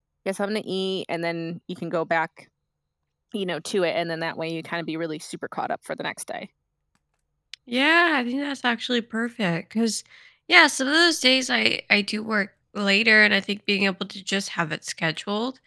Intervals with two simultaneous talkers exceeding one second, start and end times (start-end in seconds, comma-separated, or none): none